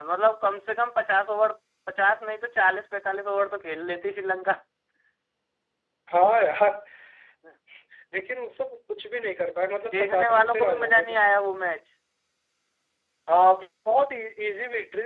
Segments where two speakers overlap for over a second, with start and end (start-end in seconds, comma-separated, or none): 9.9-11.1